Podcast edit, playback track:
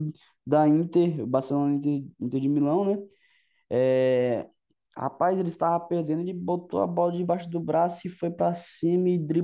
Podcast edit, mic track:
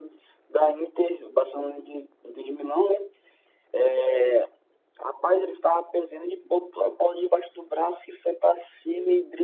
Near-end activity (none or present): none